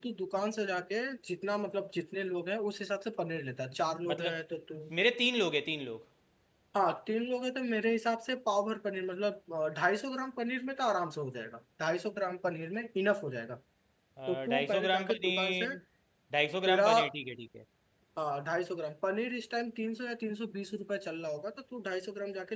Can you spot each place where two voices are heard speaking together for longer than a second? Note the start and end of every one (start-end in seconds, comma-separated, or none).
14.3-15.7